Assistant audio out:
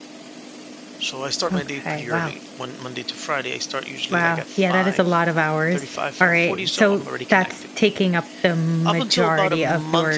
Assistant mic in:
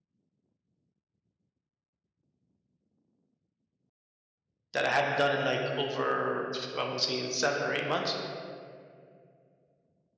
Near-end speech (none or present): present